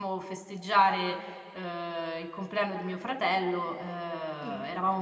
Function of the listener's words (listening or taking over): listening